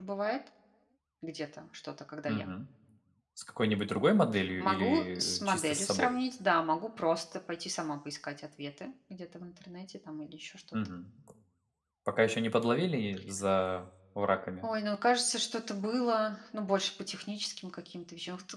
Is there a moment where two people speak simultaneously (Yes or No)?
Yes